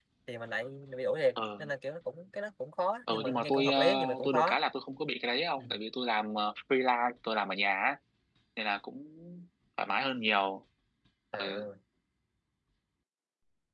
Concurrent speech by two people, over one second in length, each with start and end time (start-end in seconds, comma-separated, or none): 3.1-4.6